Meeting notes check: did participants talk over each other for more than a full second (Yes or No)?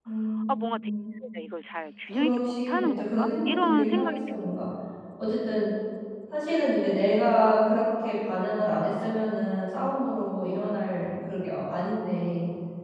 Yes